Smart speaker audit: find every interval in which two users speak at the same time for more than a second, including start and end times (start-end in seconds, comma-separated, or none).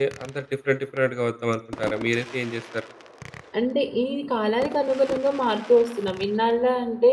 none